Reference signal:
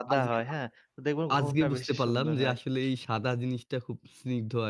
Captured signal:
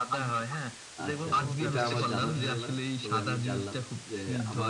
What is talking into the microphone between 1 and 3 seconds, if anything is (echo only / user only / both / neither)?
both